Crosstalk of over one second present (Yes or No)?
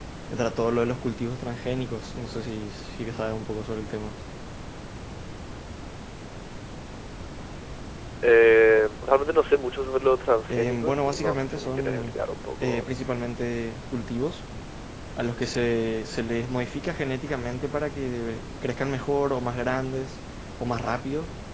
Yes